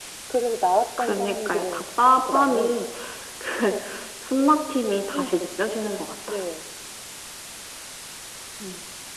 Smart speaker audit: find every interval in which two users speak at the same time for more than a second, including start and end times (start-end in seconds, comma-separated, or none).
1.0-2.8